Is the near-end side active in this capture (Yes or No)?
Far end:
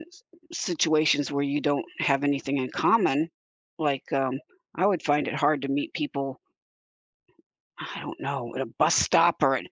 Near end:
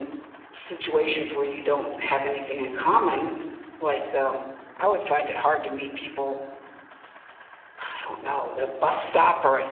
No